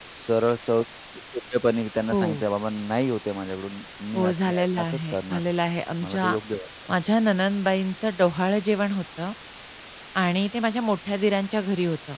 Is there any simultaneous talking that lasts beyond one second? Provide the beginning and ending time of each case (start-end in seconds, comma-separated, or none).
4.2-5.4